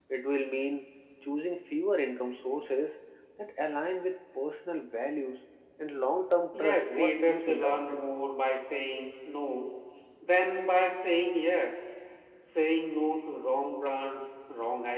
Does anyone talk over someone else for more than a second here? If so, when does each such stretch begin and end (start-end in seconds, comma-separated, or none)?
6.6-8.0